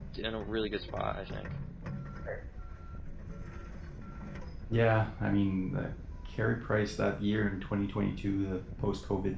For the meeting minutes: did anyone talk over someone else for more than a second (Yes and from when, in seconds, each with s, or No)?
No